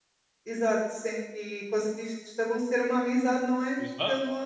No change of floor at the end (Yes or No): No